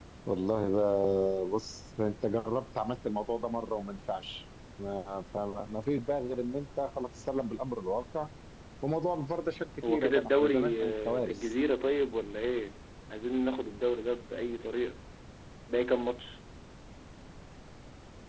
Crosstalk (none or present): present